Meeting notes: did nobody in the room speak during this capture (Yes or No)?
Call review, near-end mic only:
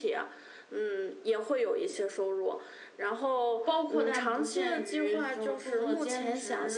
No